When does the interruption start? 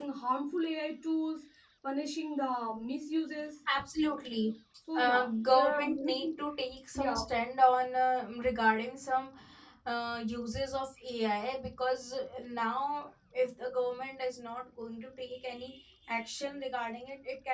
5.0 s

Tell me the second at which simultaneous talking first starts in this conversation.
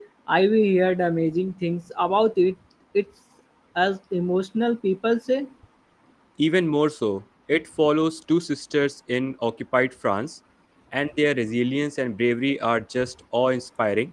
none

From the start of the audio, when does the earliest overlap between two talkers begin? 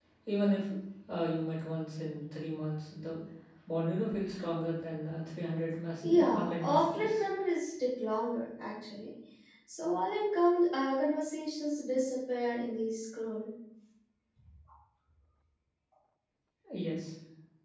6.0 s

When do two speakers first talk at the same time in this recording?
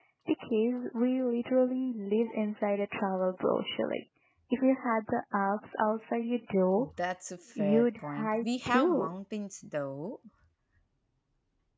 7.6 s

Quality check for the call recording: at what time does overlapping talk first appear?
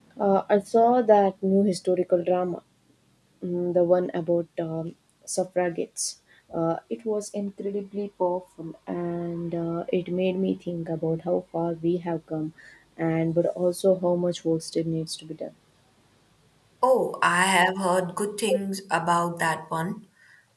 none

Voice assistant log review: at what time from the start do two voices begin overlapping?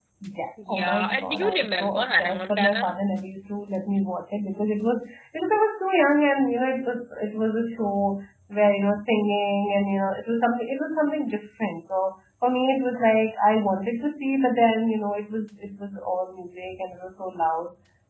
0.7 s

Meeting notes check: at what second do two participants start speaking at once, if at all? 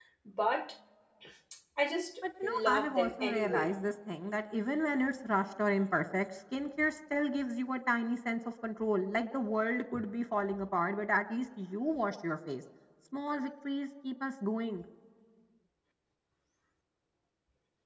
2.2 s

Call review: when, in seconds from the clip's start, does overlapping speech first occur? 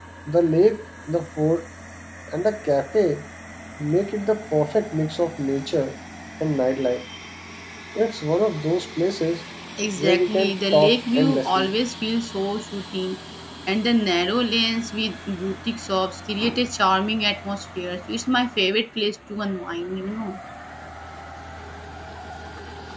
10.0 s

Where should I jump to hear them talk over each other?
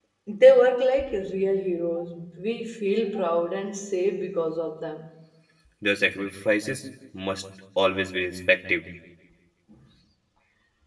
none

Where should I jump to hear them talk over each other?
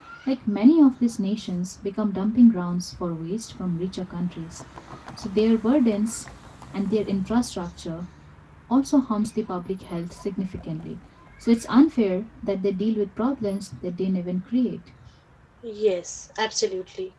none

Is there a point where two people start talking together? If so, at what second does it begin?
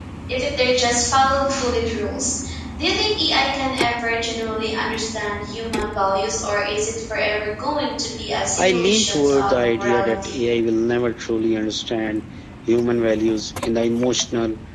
8.6 s

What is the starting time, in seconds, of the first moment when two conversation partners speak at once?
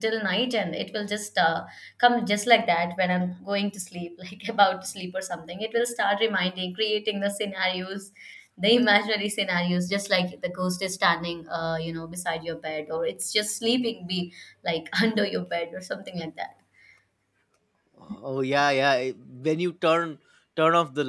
none

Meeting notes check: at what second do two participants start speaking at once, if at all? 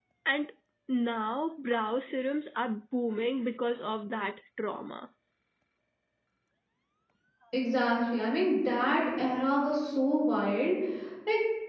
none

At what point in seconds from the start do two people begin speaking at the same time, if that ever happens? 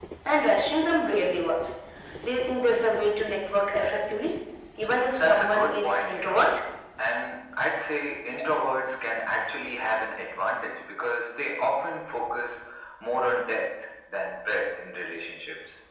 5.1 s

